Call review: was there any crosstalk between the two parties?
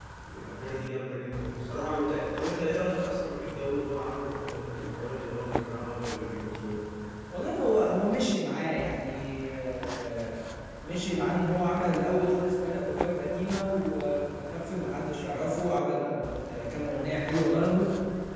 No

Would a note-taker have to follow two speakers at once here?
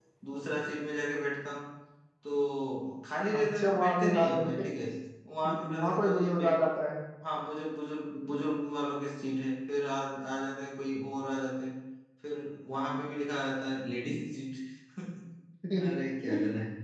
Yes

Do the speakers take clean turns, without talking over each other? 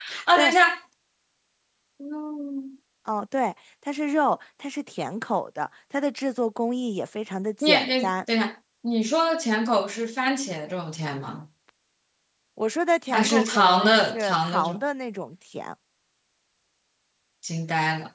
No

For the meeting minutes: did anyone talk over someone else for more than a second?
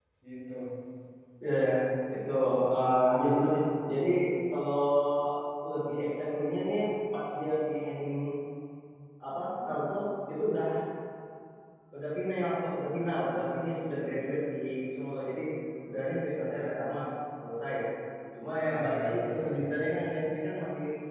Yes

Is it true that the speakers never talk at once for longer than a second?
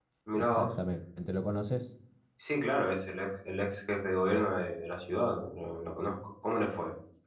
Yes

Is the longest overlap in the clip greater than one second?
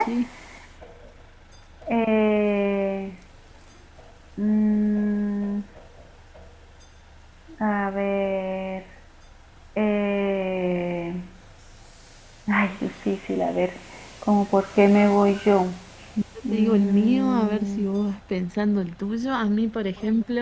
Yes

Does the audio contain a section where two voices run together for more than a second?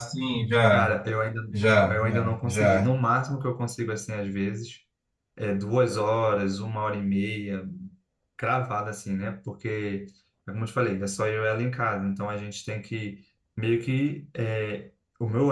Yes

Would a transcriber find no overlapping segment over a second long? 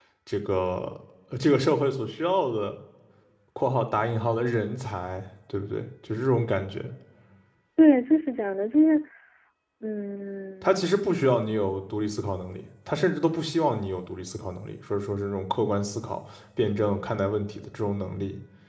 Yes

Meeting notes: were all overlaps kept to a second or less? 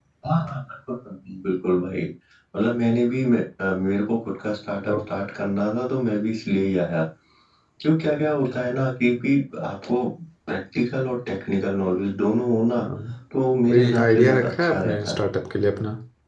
No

